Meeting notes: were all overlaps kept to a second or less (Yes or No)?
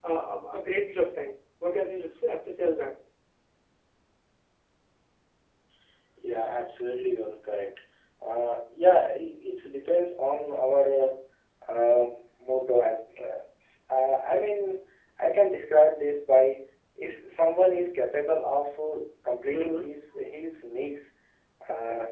Yes